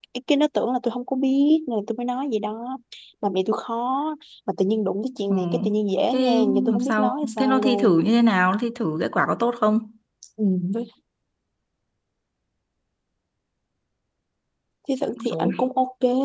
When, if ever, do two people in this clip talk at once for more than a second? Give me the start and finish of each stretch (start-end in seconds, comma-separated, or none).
6.1-8.0